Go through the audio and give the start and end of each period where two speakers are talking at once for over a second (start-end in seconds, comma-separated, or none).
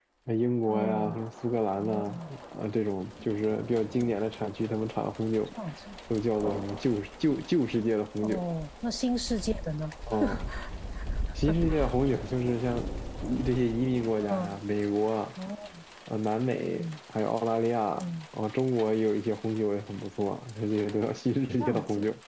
none